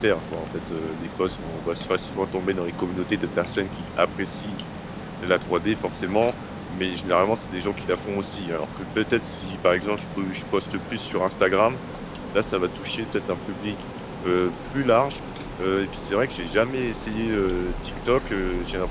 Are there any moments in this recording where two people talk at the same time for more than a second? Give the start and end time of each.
none

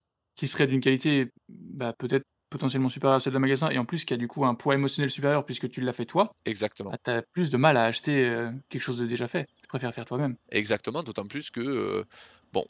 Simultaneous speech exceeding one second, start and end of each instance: none

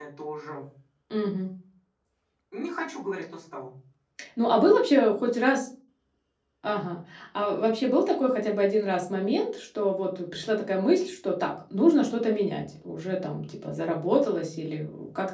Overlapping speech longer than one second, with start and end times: none

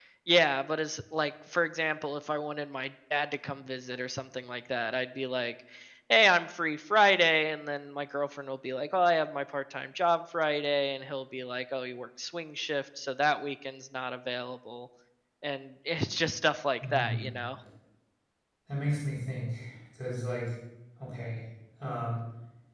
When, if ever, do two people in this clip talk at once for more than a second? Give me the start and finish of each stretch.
none

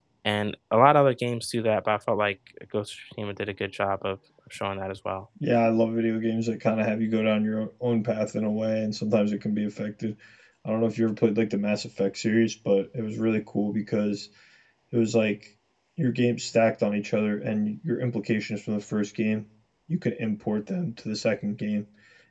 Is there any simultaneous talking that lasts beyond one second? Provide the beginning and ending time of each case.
none

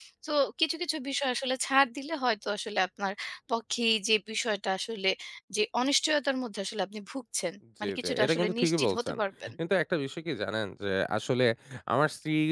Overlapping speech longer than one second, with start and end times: 7.8-9.2

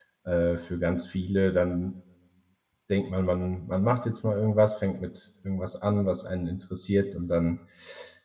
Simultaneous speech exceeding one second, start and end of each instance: none

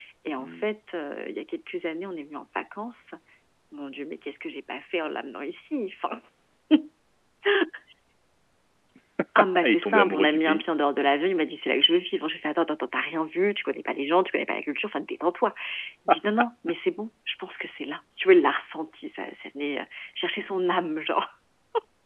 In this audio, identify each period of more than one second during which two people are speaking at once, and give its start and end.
9.4-10.6

